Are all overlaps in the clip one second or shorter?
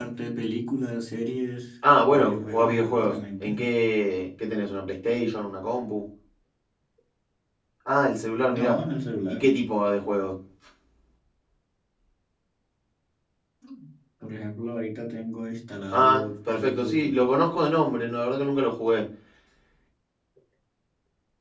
No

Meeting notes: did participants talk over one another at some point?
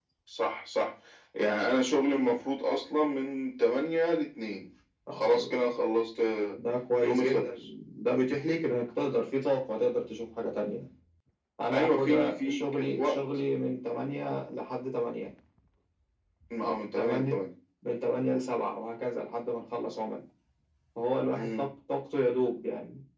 Yes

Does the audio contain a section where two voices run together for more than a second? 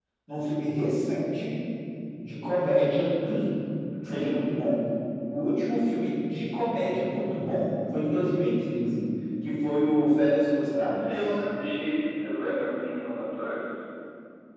No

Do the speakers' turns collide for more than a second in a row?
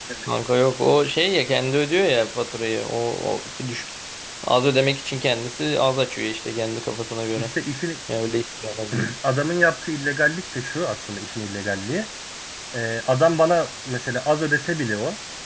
No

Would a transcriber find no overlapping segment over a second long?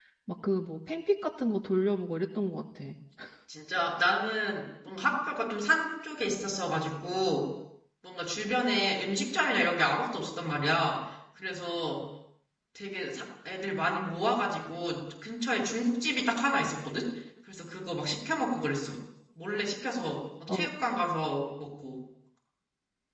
Yes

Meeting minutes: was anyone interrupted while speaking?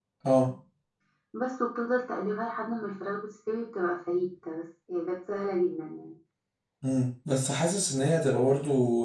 No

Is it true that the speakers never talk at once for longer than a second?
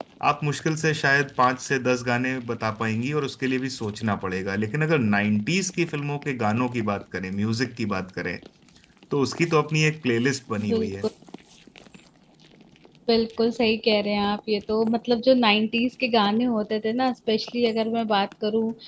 Yes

